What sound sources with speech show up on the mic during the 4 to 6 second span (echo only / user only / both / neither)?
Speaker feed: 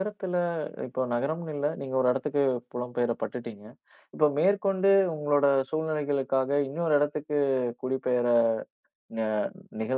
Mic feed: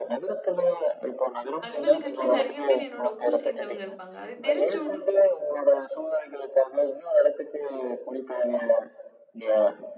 both